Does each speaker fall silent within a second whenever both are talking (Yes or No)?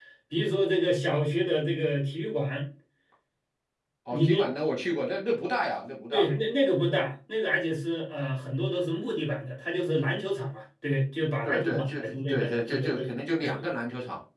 No